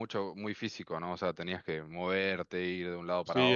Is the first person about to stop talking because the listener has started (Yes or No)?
Yes